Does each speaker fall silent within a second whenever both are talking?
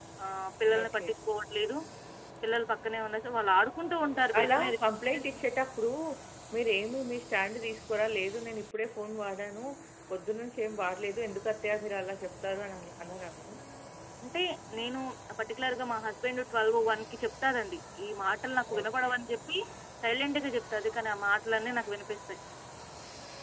Yes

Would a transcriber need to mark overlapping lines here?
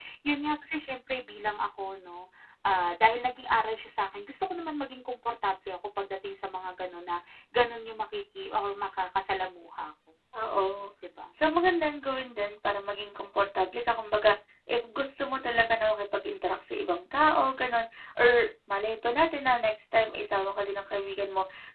No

